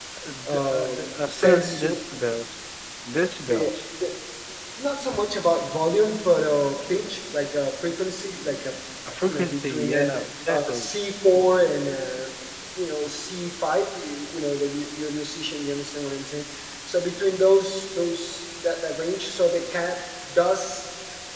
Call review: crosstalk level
present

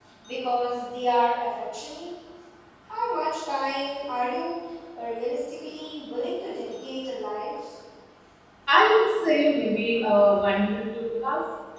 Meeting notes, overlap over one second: none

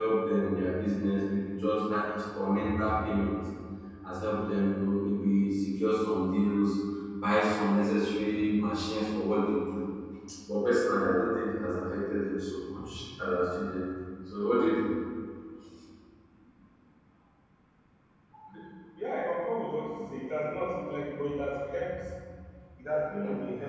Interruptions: none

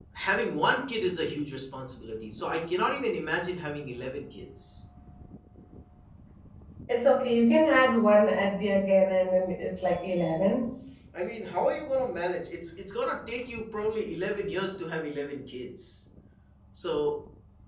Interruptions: none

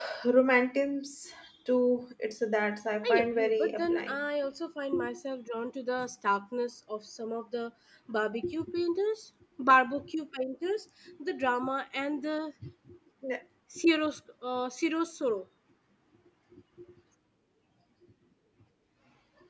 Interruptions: present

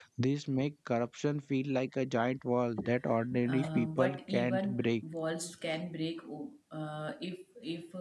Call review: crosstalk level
present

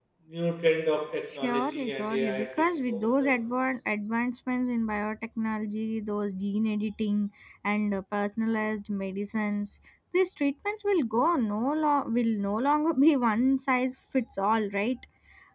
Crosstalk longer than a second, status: present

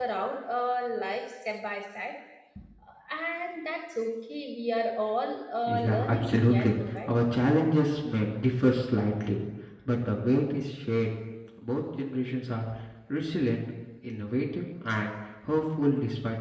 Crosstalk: present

